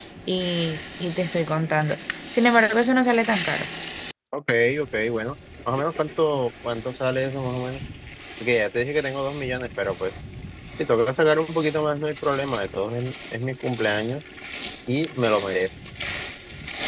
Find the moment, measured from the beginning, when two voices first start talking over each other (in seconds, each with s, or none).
none